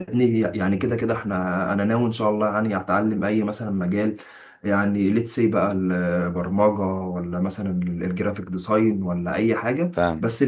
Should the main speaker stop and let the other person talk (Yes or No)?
No